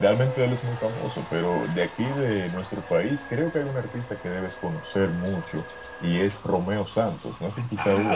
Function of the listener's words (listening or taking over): taking over